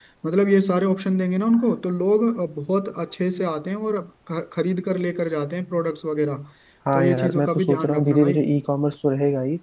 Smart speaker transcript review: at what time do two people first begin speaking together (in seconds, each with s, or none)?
6.9 s